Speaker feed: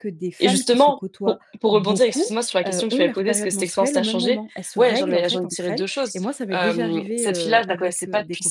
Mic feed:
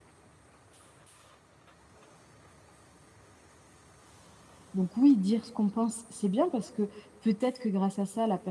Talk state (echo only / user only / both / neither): user only